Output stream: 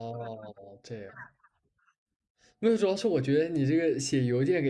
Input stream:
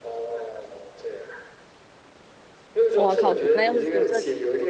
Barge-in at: 2.9 s

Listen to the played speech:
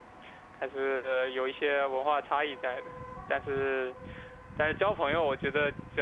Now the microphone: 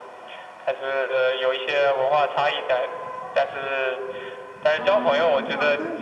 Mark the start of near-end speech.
4.8 s

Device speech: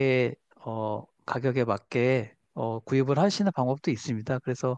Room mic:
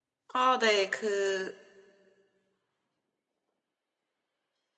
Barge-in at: 0.3 s

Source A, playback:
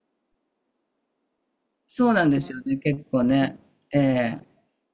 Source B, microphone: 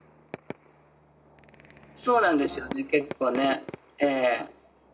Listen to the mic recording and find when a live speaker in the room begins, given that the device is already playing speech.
none

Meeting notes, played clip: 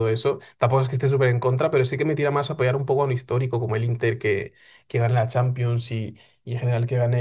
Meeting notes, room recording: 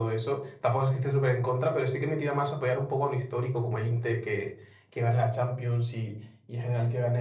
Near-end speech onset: none

